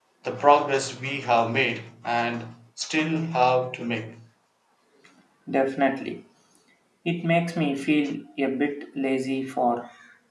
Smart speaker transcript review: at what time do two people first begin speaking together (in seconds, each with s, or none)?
none